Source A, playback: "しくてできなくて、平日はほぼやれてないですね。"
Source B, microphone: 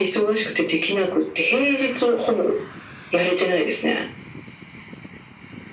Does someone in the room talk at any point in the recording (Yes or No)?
No